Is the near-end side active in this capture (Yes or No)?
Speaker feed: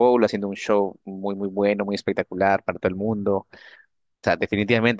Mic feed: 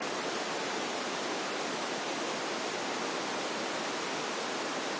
No